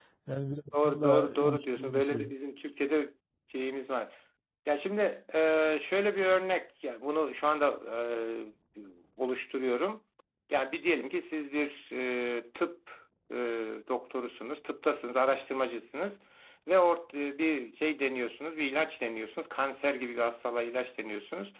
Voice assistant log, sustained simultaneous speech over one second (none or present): present